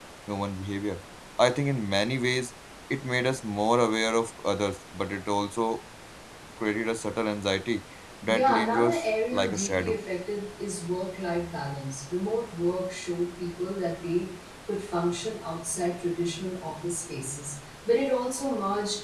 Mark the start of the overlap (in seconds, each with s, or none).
8.3 s